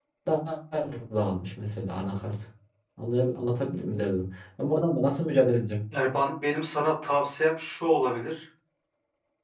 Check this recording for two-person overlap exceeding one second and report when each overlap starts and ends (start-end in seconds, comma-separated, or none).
none